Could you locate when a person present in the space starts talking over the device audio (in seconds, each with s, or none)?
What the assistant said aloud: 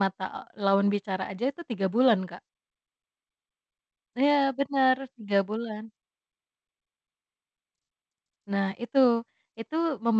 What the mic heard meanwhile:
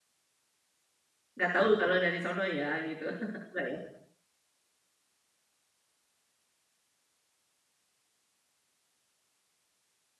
1.4 s